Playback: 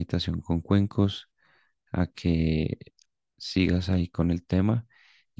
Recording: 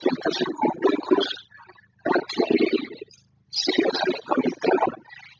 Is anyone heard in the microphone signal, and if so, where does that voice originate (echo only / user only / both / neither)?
echo only